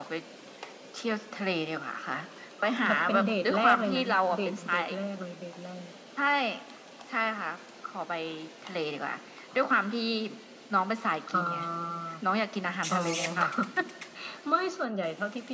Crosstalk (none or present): present